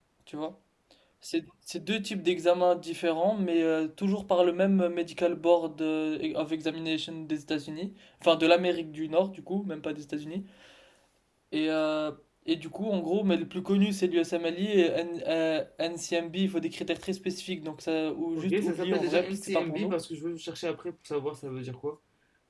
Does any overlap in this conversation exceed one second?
Yes, from 18.4 s

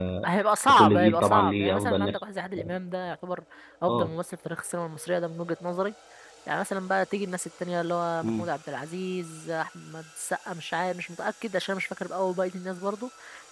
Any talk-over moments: Yes, from 0.7 s

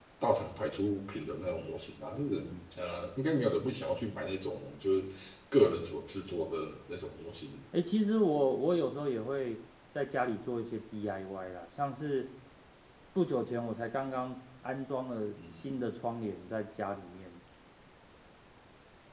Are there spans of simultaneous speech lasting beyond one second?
No

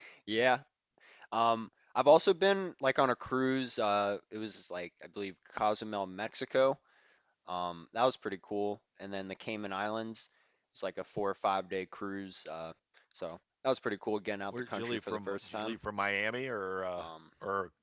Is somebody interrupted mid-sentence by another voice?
Yes, from 14.5 s

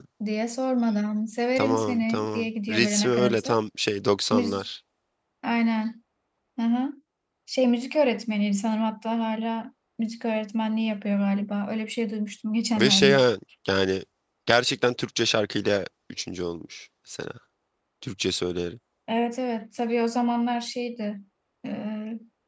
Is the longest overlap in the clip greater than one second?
Yes, from 1.6 s

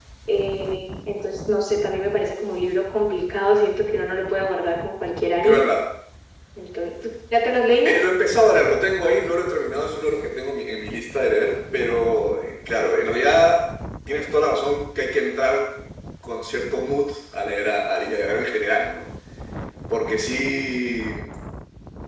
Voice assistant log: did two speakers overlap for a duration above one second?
No

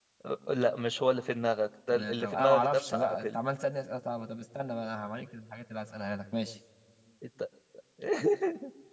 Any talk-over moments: Yes, from 1.9 s

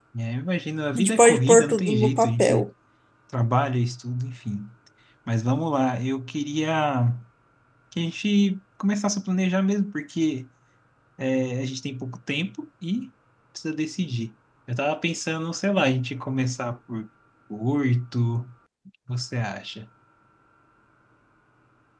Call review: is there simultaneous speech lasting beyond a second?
Yes, from 1.0 s

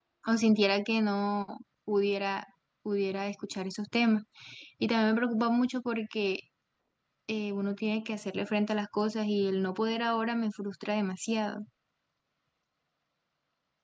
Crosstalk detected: No

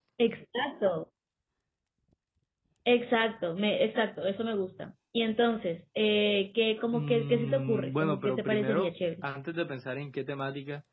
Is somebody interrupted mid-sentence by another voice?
Yes, from 6.9 s

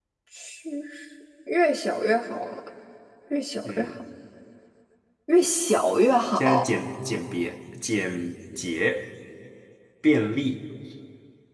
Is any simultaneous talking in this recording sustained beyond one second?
No

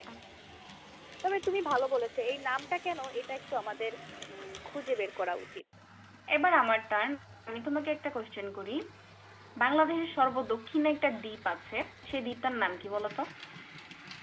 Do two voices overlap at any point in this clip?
No

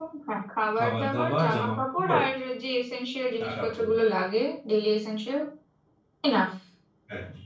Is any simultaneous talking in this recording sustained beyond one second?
Yes, from 0.8 s

